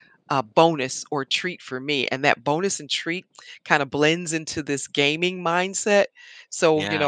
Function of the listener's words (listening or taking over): listening